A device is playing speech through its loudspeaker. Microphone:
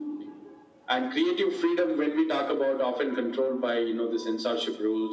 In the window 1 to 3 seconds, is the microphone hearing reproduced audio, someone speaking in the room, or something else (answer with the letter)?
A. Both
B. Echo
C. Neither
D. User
B